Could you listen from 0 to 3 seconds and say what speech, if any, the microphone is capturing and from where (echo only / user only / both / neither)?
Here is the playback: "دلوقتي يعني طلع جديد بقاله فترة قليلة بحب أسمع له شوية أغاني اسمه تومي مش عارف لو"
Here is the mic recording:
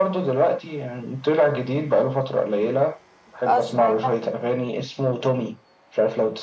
echo only